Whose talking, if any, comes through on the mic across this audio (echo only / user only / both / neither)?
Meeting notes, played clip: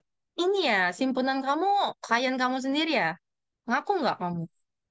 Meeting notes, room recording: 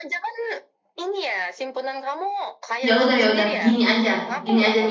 both